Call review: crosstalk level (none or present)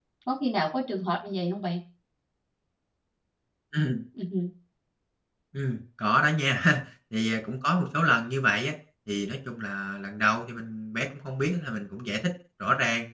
none